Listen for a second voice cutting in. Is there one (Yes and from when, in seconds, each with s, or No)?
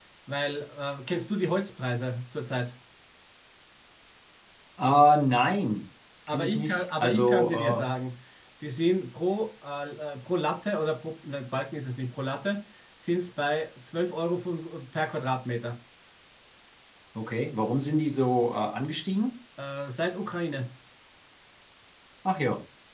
Yes, from 6.3 s